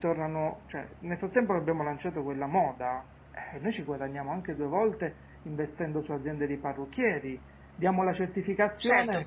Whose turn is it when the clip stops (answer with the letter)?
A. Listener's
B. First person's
A